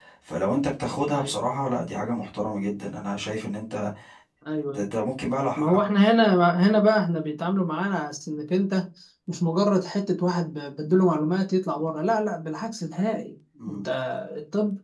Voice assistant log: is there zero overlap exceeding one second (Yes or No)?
Yes